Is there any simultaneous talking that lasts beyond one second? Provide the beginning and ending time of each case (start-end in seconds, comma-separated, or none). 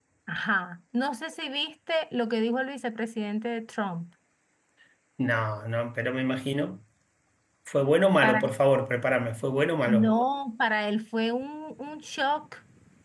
none